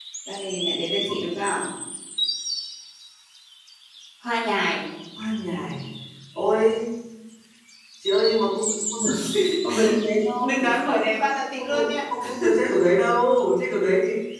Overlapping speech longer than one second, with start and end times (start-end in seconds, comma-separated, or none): none